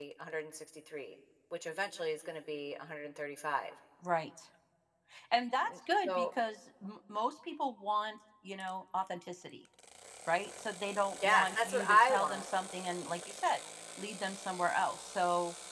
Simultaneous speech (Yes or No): Yes